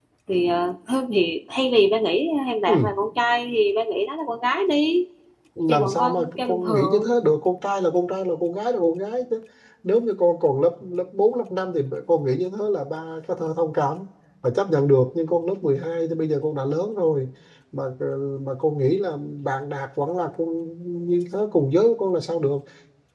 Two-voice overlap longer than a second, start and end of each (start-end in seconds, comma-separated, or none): 5.7-7.2